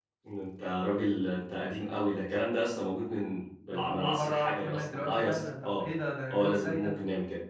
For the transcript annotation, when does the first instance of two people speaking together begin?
3.7 s

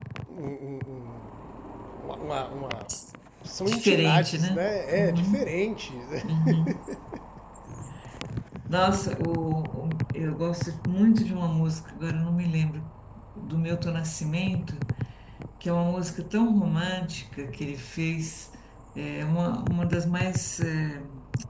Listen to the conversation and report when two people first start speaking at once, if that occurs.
3.6 s

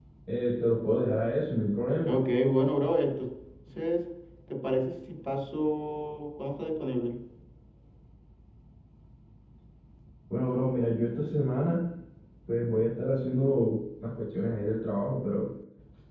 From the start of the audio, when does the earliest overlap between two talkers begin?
none

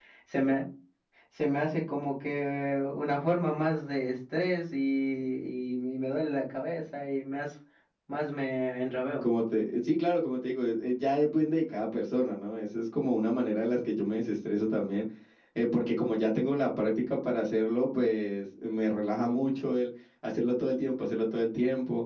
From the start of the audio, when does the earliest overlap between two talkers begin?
none

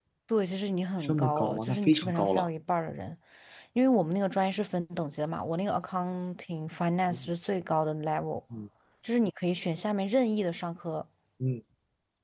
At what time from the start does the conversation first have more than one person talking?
1.0 s

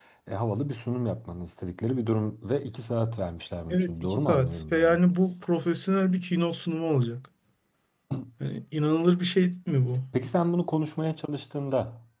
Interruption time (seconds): 3.7 s

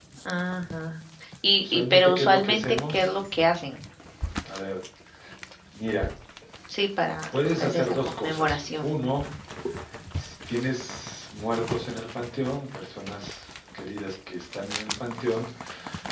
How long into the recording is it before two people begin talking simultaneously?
1.6 s

